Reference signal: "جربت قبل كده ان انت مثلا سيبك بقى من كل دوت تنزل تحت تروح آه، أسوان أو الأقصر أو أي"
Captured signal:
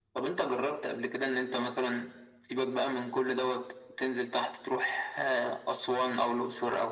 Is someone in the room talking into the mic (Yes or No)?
No